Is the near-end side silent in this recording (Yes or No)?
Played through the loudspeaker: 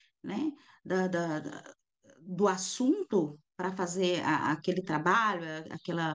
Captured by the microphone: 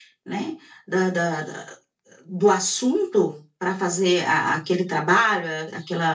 Yes